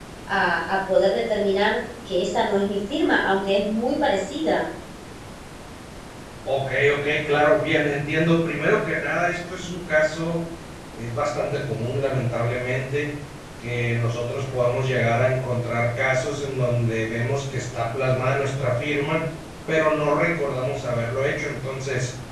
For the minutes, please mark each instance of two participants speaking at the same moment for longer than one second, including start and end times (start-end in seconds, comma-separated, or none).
none